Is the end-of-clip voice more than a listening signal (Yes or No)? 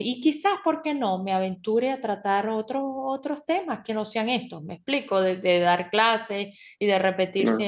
No